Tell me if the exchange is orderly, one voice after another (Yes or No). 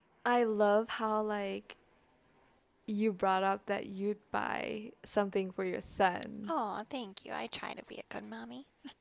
Yes